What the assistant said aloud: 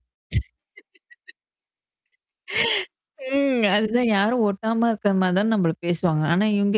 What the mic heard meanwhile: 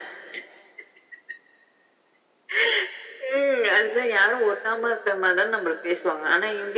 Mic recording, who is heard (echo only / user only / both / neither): echo only